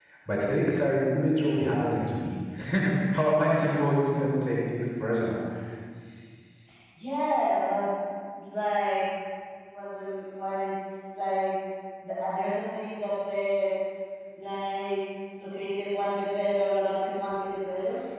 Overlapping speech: No

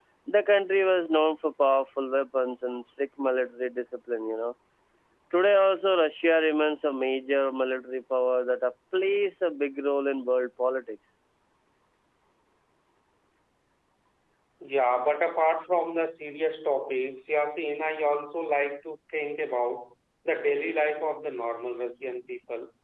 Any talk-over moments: No

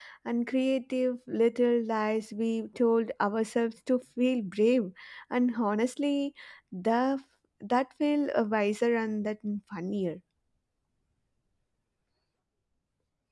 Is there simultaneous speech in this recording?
No

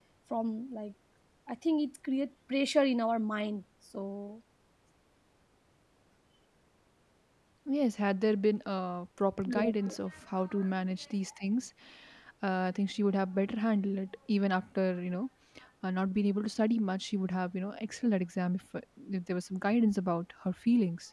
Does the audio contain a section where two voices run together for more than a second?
No

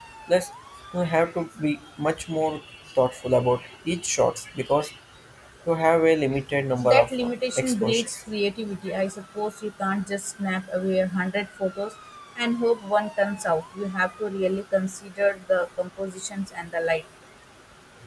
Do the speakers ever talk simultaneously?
Yes, from 6.8 s

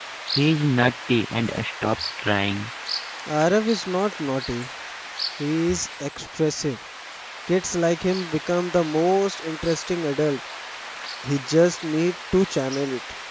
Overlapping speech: No

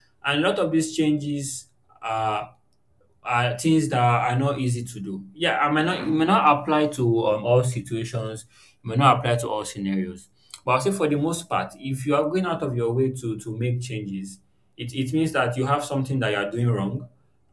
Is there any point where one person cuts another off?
No

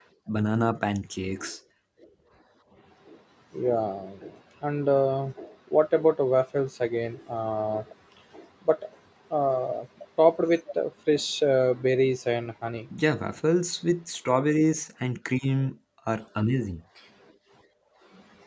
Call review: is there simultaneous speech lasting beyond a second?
No

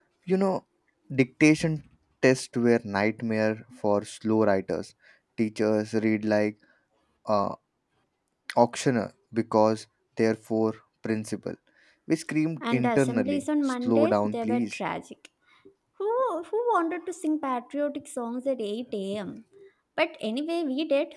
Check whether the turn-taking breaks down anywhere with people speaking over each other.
Yes, from 12.6 s

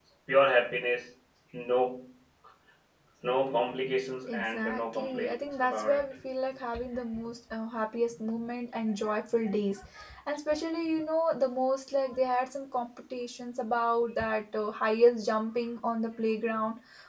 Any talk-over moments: Yes, from 4.3 s

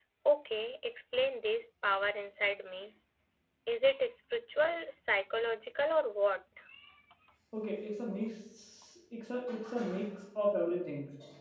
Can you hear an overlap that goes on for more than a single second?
No

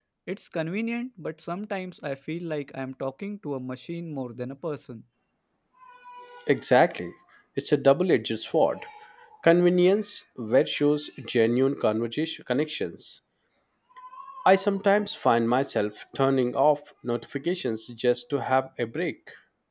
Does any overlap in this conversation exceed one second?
No

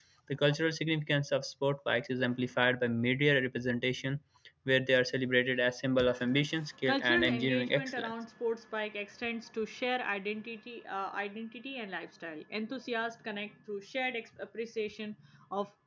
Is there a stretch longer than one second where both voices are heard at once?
Yes, from 6.9 s

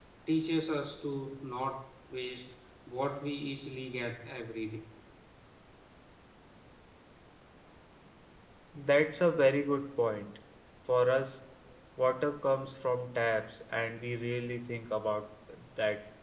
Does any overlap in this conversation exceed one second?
No

